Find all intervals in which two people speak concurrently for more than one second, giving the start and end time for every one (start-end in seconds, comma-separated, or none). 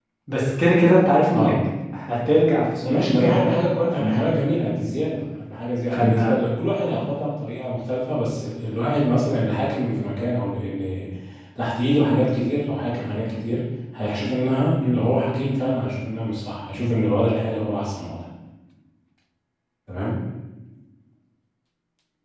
none